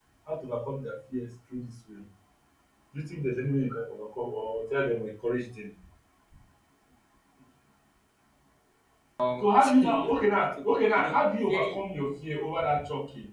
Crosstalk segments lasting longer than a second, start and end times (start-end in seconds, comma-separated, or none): 9.4-11.8